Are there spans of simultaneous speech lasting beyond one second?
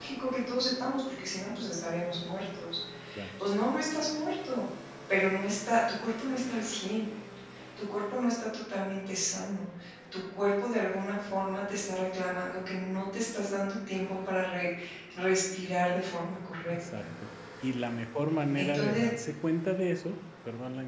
No

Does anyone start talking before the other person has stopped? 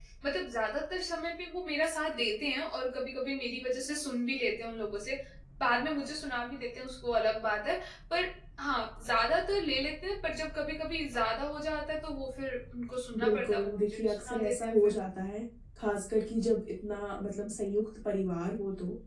Yes, from 13.1 s

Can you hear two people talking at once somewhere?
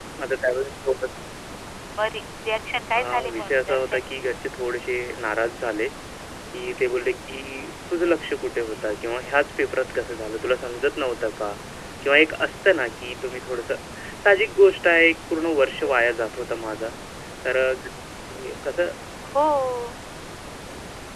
Yes, from 3.0 s

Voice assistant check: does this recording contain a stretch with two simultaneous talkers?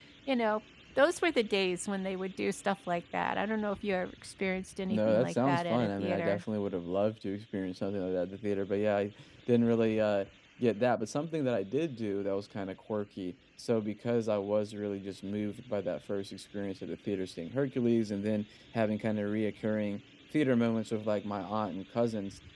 Yes, from 4.9 s

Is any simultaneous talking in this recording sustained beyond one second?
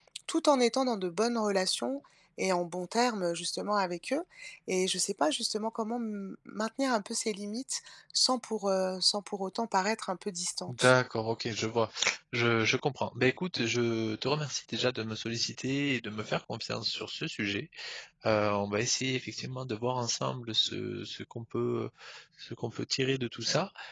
No

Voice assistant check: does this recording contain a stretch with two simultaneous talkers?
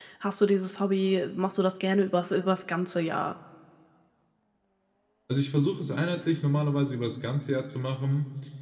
No

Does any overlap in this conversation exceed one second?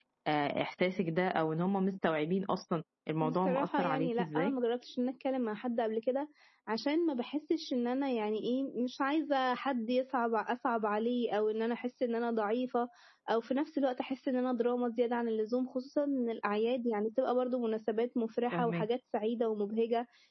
Yes, from 3.2 s

